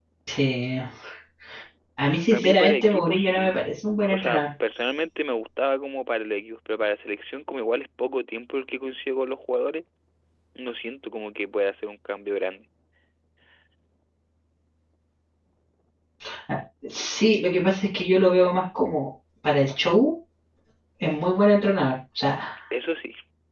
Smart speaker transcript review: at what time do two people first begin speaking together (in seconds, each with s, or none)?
2.3 s